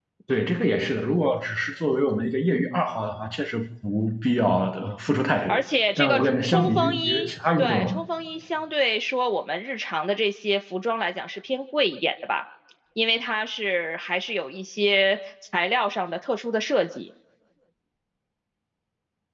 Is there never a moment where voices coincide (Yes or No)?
No